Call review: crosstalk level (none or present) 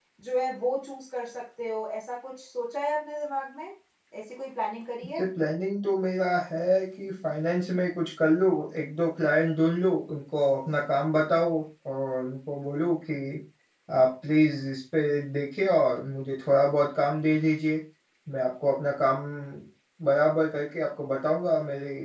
none